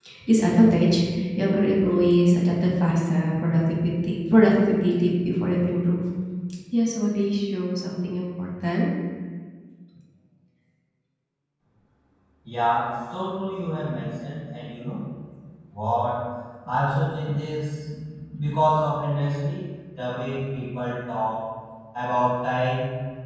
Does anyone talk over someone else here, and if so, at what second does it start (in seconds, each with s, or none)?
none